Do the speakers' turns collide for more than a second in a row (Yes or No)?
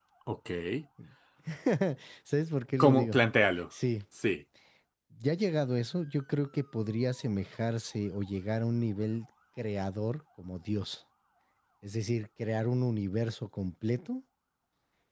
No